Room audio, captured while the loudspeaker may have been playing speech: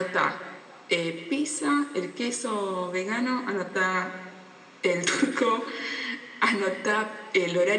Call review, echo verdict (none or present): present